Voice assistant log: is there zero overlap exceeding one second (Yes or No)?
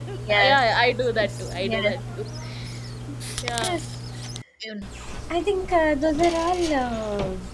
Yes